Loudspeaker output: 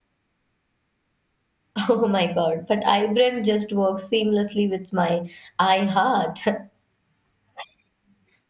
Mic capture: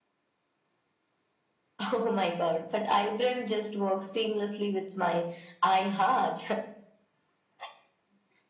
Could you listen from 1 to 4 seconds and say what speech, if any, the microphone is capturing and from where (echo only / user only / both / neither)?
echo only